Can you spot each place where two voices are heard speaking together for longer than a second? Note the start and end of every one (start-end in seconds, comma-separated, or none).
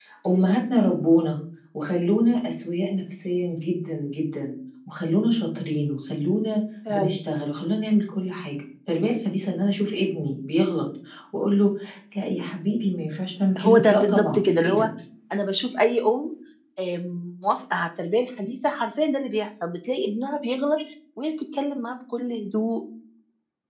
13.6-14.9